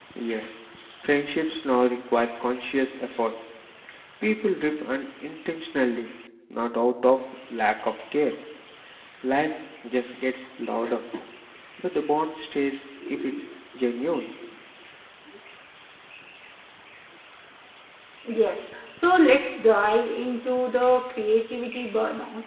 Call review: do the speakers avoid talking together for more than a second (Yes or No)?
Yes